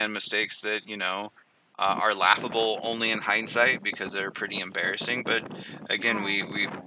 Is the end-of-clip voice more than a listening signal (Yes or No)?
No